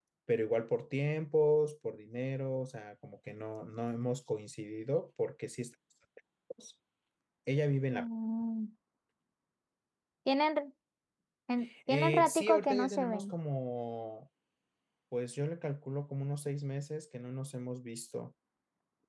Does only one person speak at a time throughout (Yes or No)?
No